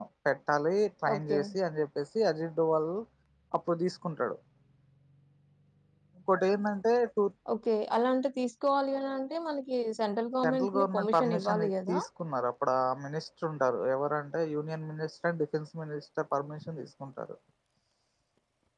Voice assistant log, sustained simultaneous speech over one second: present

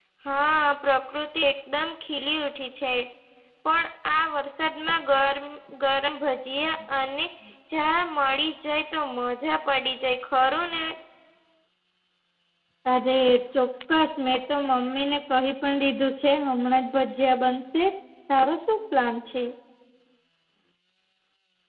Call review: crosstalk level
none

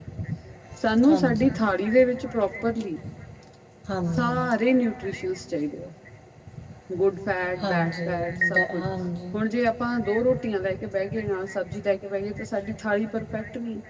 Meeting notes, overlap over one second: present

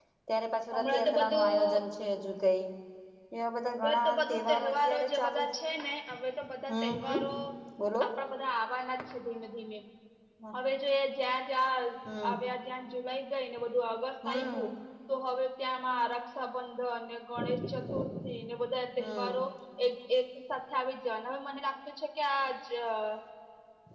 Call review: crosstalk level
present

